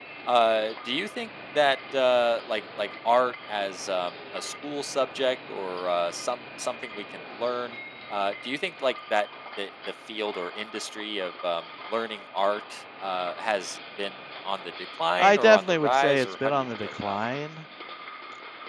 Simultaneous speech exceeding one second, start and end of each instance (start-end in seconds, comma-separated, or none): 15.2-17.2